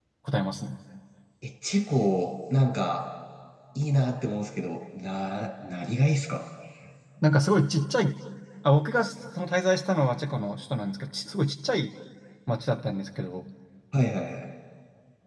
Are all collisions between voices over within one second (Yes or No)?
Yes